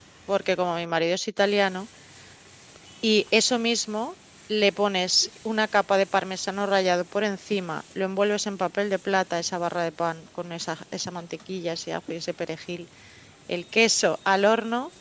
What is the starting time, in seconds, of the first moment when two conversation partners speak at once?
none

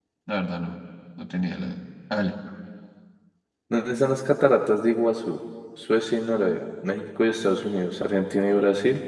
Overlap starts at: none

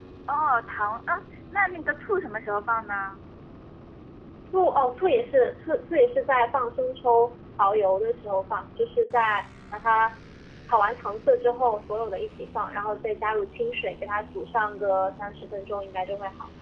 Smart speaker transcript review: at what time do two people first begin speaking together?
none

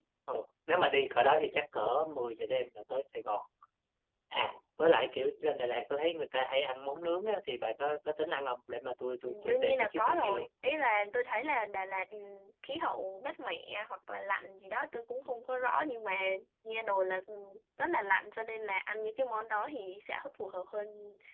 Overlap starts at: 9.2 s

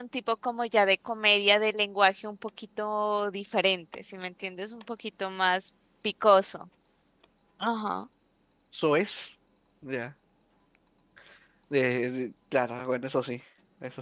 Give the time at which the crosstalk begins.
none

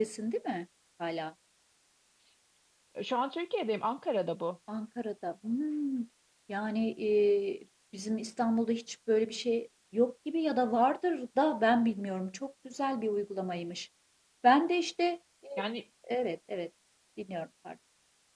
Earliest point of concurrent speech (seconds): none

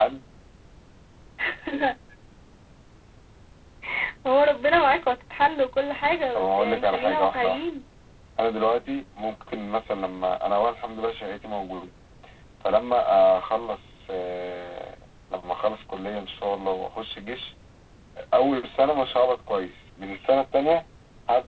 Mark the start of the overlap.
6.3 s

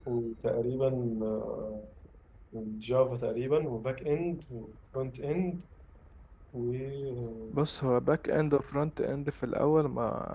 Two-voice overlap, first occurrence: none

